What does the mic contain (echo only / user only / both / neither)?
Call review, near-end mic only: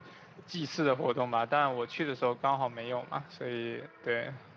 user only